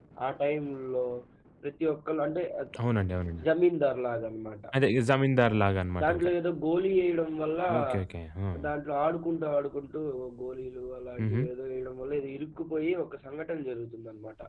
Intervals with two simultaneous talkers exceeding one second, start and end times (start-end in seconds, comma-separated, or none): none